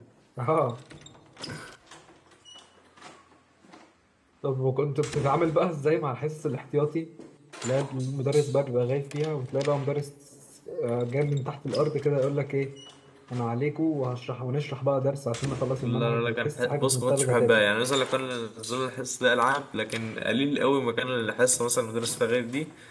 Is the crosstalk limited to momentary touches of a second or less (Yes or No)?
No